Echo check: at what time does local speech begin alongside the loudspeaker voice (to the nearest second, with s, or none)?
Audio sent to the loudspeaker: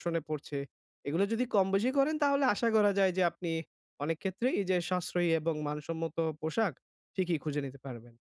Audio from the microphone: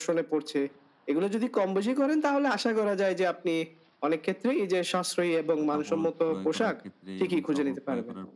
6 s